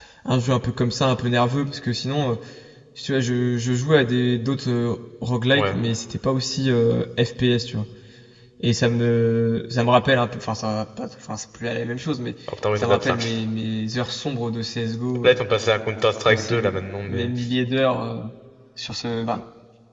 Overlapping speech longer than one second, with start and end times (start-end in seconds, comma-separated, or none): none